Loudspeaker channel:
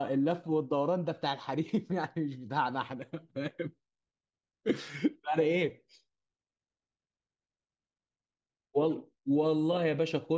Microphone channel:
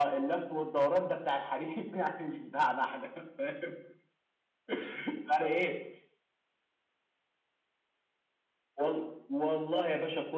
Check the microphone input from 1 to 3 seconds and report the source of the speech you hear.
echo only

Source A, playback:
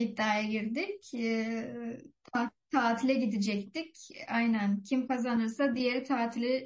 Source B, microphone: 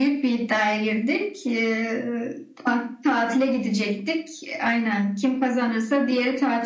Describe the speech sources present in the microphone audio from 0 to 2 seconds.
echo only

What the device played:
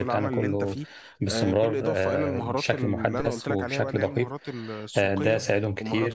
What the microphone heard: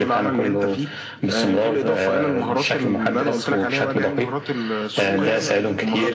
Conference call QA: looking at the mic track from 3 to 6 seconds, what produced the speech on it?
both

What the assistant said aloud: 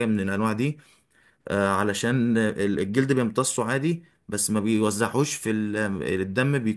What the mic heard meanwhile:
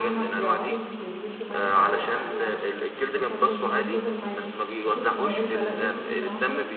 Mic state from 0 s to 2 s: both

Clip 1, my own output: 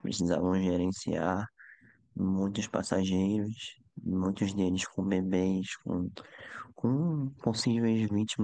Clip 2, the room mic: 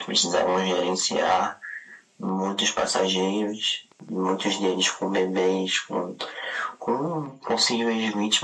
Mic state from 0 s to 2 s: echo only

